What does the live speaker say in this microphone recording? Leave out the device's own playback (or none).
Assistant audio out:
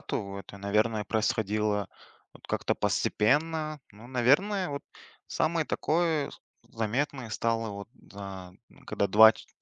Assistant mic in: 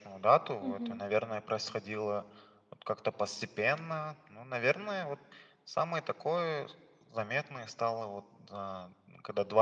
Мгм.